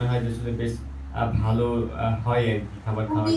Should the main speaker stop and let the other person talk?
Yes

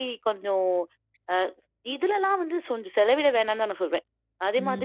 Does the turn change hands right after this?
Yes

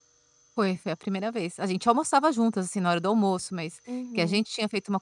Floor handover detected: No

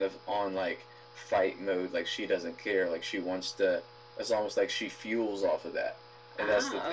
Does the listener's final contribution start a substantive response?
No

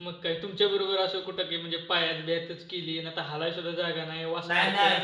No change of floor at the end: No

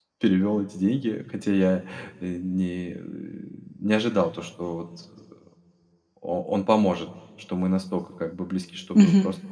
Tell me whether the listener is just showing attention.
Yes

